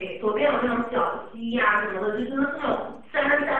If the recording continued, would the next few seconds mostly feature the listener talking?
No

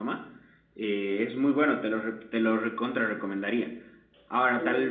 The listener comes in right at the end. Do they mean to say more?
No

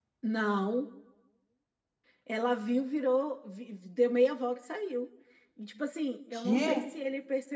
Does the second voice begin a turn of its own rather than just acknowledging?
No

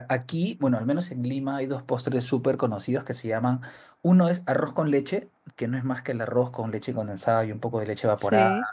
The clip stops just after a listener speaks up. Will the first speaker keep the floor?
No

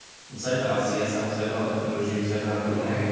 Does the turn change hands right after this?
Yes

